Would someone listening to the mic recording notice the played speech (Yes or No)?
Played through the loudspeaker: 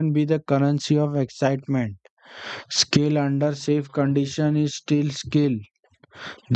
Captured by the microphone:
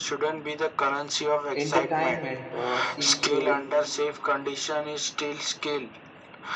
Yes